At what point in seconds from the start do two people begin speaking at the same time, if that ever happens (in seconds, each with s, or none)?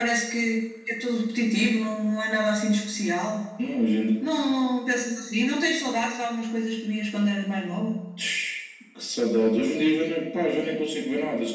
none